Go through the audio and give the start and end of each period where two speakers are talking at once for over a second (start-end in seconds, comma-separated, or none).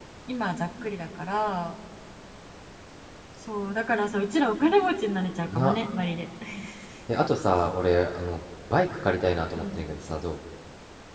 none